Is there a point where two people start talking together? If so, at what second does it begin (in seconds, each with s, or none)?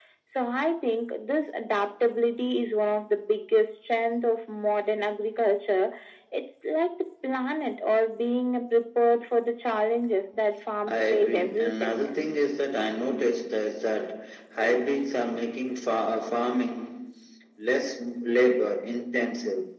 10.8 s